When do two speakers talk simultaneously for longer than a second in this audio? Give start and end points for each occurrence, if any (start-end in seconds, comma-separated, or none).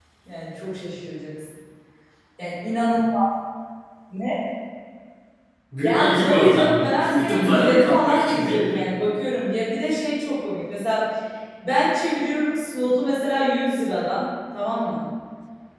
5.8-8.9